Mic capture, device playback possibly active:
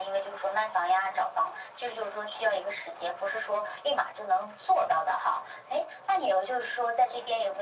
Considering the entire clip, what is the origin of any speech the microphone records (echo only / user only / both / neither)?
echo only